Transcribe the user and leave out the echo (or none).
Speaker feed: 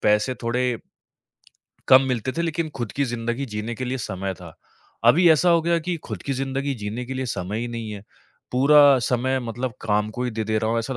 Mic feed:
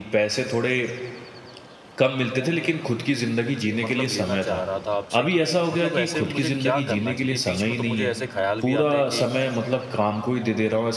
मतलब लेना चाह रहा था आपसे कि मतलब ऐसे में मुझे क्या करना चाहिए? बीच में तो मुझे ऐसे ख़्याल भी आते हैं कि